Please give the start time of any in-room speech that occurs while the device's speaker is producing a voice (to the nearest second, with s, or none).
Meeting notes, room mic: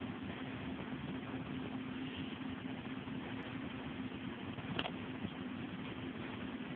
none